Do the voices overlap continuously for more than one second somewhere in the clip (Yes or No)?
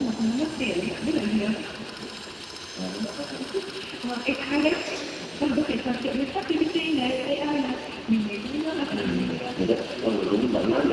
Yes